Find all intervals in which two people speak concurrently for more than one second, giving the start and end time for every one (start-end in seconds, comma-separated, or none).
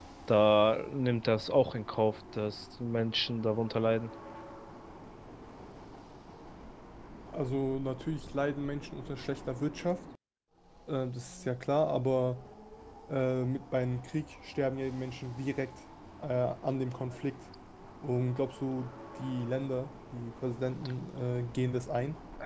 none